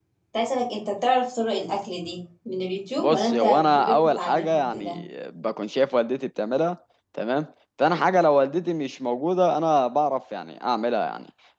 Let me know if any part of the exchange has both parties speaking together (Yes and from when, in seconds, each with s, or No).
Yes, from 3.0 s